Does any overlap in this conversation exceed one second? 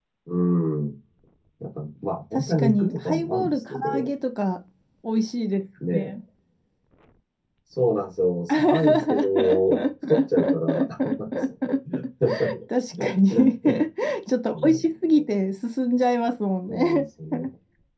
Yes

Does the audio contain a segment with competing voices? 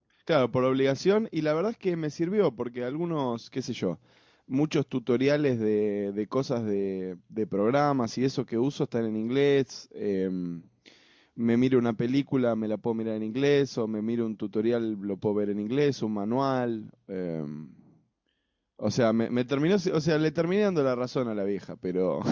No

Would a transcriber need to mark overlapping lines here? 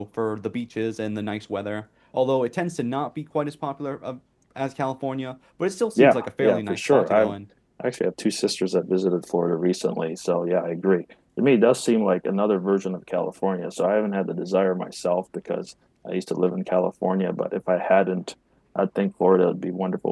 Yes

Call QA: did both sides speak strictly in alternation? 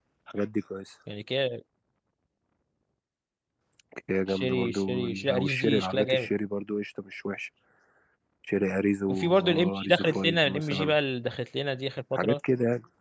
No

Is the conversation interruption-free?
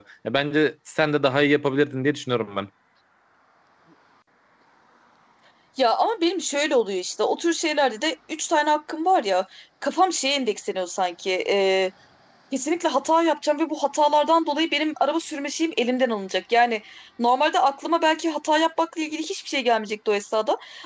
Yes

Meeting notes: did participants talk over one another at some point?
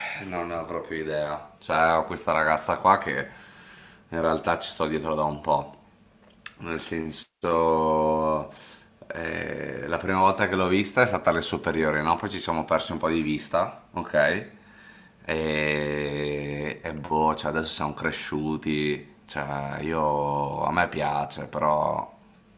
No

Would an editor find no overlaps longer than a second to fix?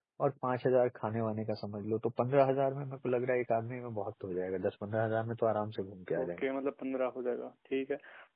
Yes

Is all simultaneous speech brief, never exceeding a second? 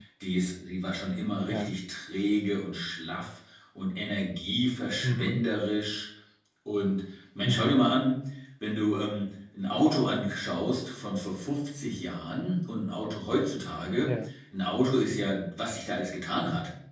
Yes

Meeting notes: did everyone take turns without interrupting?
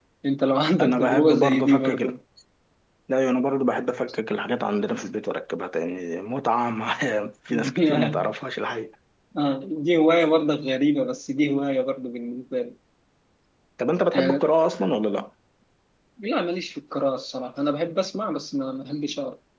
No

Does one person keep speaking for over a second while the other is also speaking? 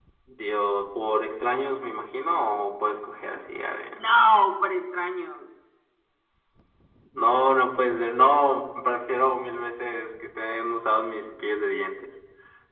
No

